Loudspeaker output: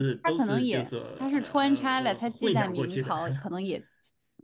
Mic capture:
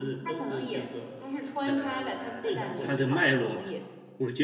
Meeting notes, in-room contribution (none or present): present